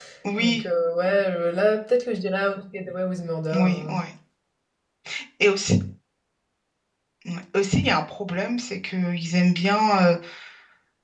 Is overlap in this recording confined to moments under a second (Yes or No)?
Yes